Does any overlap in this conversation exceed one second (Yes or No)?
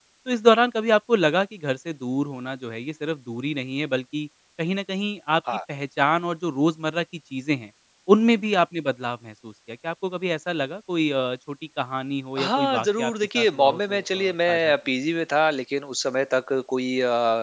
Yes